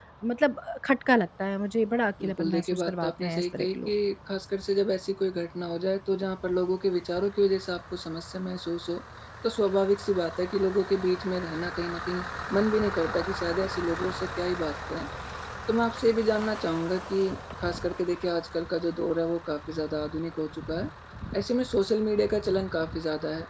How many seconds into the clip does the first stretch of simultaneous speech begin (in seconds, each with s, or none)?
2.2 s